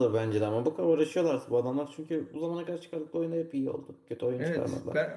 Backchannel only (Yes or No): No